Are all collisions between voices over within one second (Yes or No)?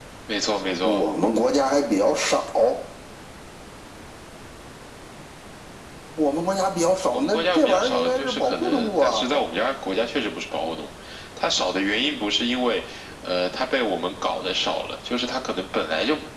No